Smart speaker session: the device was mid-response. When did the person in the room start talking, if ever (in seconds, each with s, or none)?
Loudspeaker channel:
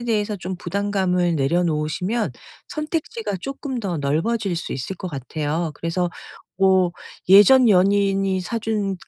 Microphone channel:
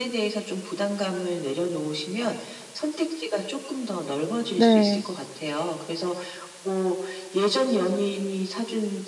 4.5 s